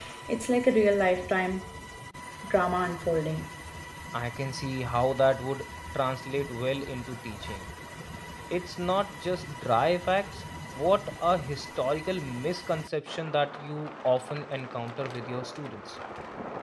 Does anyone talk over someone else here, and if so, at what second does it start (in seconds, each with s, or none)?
none